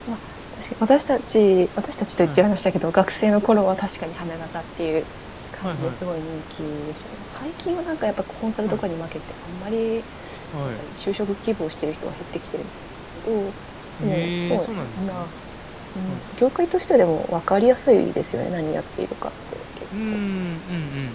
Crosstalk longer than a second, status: present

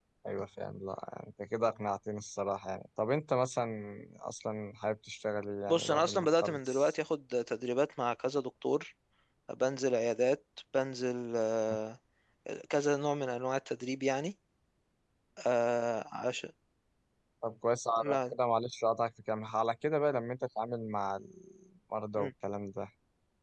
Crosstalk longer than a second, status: present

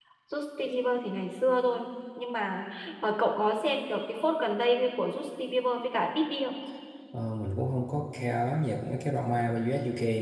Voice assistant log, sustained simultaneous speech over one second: none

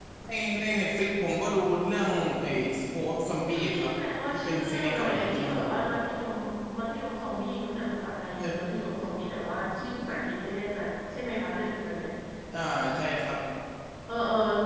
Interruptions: present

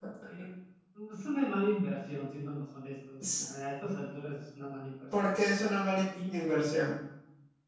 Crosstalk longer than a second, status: none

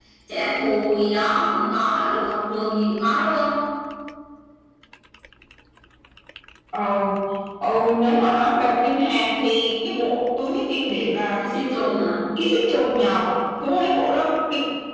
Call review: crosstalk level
none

